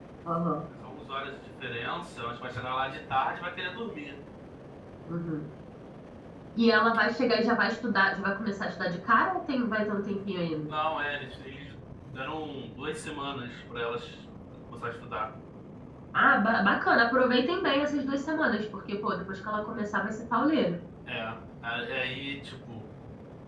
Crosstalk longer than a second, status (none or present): none